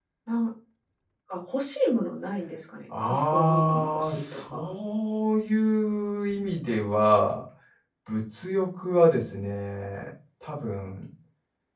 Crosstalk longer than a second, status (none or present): present